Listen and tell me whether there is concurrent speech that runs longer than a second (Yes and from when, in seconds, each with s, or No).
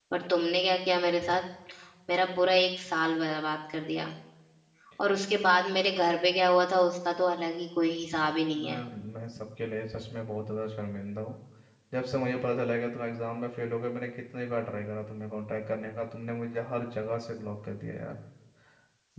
No